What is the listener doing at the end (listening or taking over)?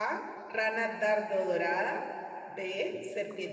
listening